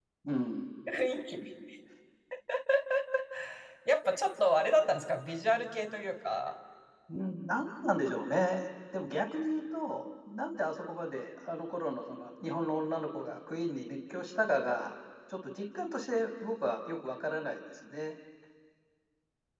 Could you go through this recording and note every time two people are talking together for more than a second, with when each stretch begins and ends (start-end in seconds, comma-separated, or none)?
none